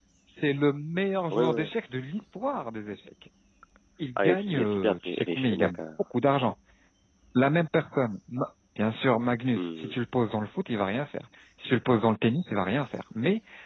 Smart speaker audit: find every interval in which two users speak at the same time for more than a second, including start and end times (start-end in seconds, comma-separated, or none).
4.2-5.7